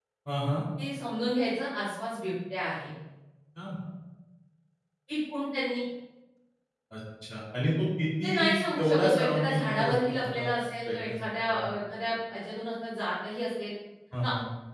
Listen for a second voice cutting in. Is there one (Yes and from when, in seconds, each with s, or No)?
Yes, from 8.2 s